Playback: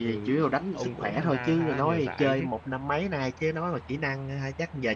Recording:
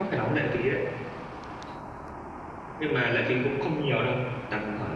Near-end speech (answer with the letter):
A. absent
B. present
B